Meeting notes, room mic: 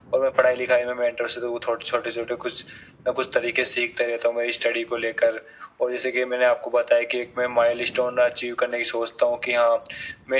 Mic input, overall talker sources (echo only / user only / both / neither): echo only